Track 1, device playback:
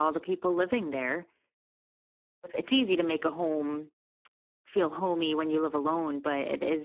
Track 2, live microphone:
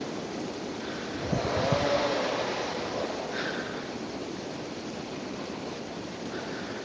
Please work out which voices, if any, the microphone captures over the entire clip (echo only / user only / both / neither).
neither